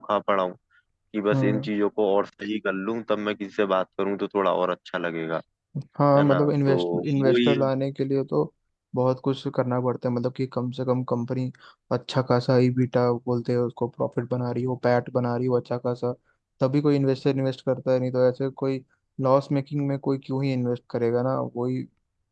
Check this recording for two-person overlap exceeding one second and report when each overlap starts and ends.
6.2-7.5

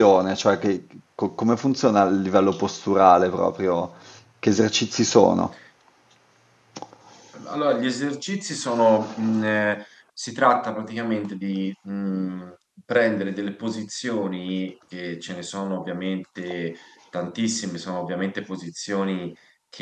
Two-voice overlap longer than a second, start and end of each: none

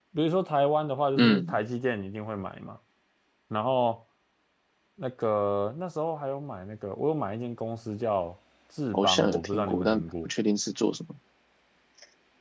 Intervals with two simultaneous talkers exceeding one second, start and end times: 8.9-10.3

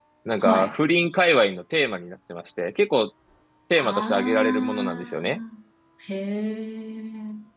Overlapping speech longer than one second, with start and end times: 3.8-5.4

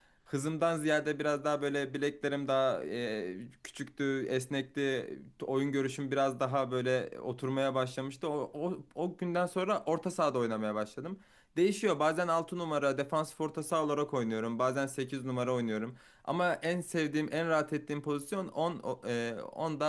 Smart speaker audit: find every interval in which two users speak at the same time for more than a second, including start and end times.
none

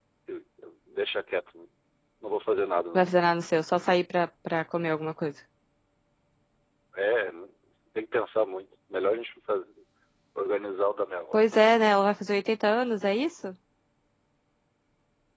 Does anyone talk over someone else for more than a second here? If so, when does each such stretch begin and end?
none

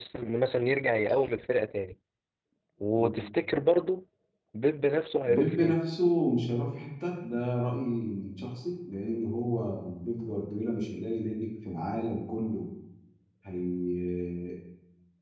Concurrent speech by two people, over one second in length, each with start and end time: none

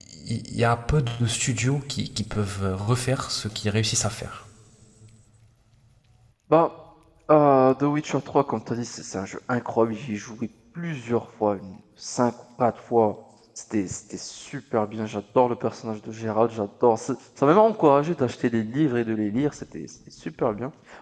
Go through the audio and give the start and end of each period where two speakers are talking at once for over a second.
none

